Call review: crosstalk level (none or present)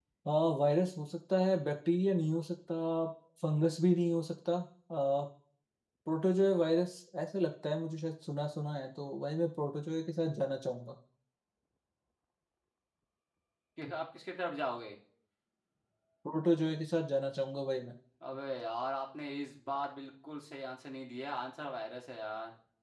none